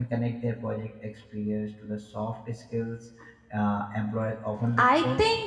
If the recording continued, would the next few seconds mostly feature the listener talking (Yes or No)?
Yes